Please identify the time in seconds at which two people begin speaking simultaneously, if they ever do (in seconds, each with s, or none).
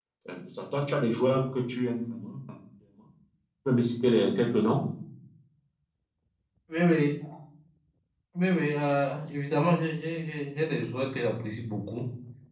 none